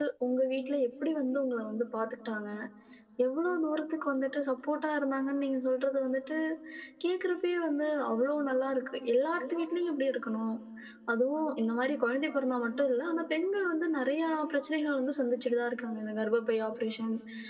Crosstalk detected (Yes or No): No